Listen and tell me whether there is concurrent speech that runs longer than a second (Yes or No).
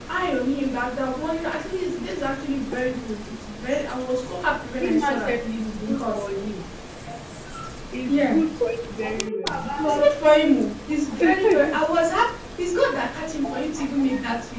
Yes